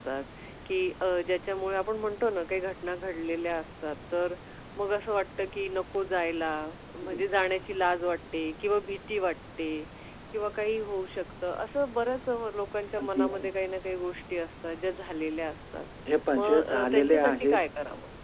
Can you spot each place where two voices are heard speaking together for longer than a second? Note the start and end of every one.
16.3-17.6

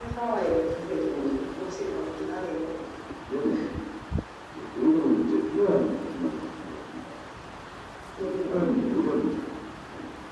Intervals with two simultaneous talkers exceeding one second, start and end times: 8.2-9.4

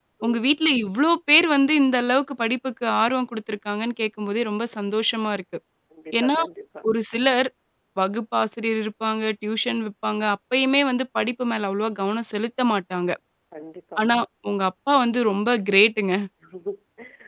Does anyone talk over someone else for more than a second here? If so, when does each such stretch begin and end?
none

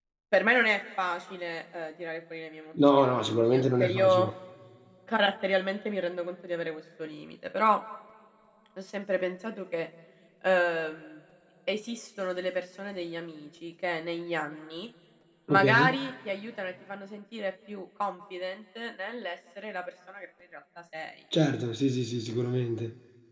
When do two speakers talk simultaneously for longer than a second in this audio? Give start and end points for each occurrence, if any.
3.0-4.3

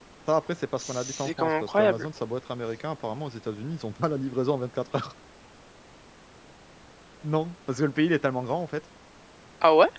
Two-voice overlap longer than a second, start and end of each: 0.8-2.1

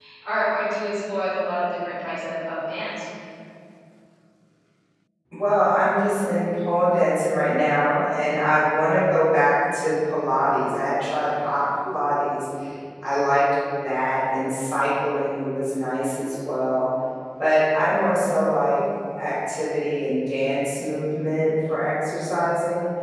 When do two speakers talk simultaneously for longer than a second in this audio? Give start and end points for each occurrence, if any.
none

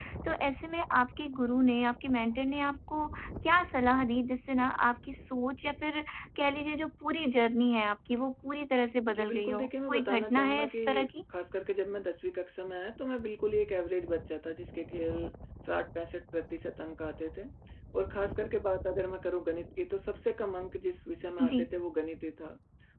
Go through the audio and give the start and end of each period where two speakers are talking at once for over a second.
9.2-11.1

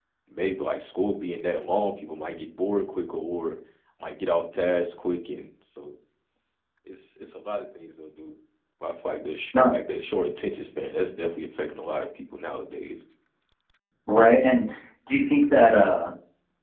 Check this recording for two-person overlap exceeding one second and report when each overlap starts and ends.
none

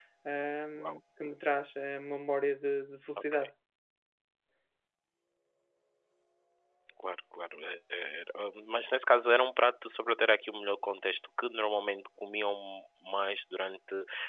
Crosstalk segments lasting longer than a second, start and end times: none

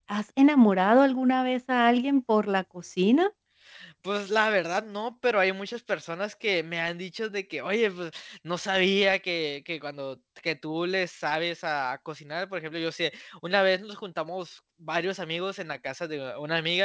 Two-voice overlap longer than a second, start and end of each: none

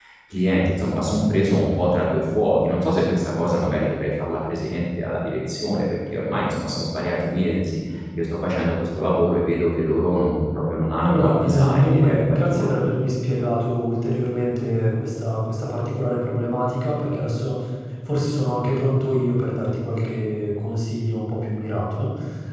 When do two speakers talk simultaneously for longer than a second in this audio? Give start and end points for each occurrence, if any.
11.0-12.7

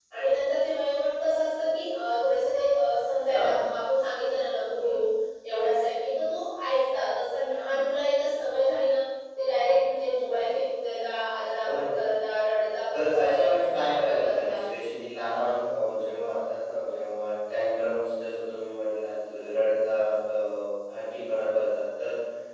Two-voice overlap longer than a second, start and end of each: 12.9-14.6

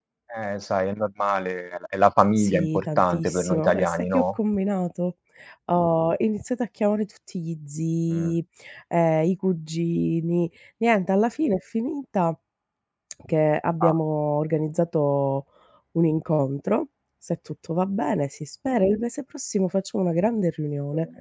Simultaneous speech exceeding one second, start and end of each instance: 2.4-4.2

